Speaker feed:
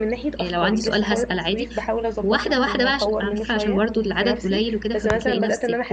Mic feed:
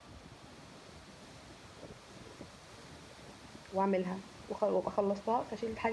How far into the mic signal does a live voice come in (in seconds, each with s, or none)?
3.7 s